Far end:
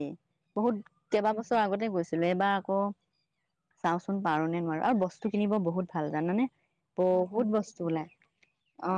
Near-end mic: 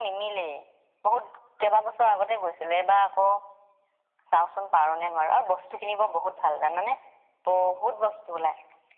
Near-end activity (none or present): none